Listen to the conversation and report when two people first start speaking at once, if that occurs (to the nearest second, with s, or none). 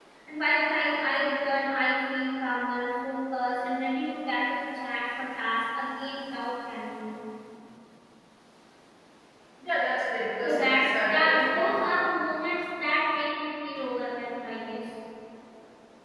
10 s